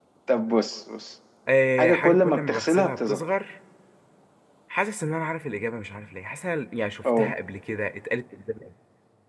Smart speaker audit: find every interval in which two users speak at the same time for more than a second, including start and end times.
1.8-3.3

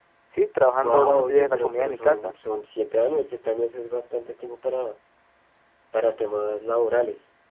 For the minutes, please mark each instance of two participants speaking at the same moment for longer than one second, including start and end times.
0.8-2.3

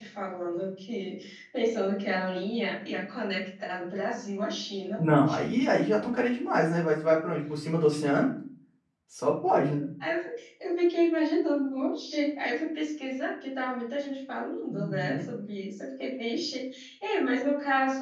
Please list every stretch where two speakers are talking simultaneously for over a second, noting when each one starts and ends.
none

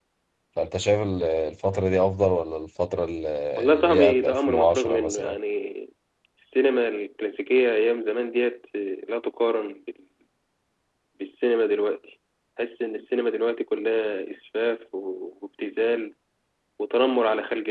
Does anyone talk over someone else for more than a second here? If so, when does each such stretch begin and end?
3.7-5.3

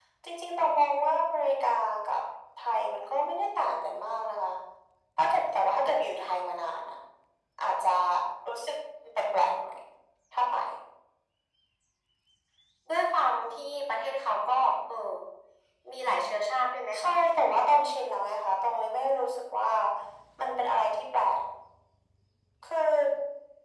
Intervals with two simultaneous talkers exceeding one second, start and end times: none

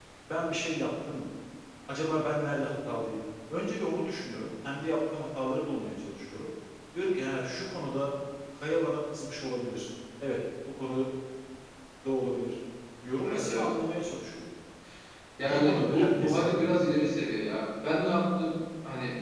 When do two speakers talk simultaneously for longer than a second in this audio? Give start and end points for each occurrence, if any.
15.4-16.7

